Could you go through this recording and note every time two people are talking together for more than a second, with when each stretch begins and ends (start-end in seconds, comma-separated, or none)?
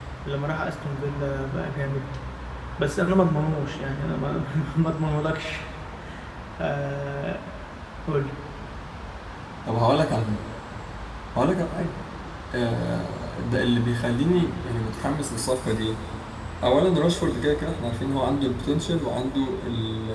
none